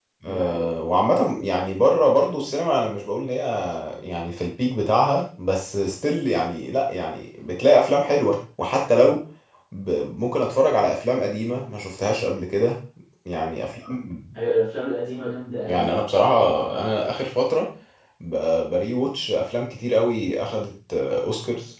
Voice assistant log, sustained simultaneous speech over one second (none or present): none